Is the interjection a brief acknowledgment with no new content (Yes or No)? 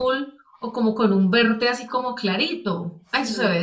No